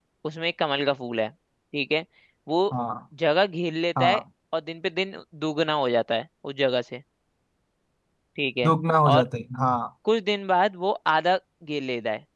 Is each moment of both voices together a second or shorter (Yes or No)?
Yes